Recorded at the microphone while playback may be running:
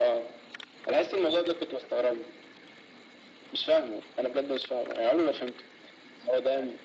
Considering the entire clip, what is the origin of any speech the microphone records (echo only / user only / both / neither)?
echo only